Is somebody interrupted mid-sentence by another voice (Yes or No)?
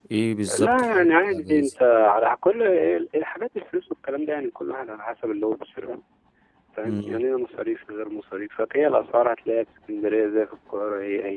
Yes